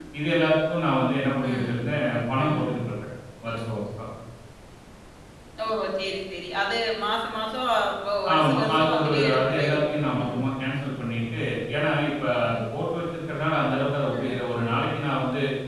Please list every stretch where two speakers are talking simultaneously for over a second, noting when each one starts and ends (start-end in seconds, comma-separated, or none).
8.3-10.4